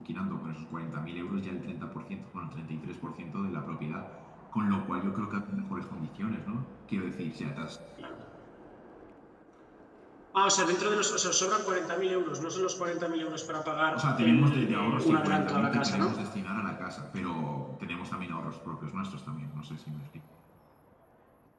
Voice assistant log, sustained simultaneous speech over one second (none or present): present